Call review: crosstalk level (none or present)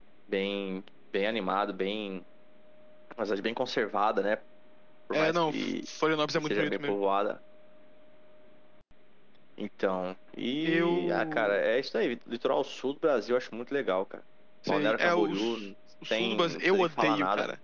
present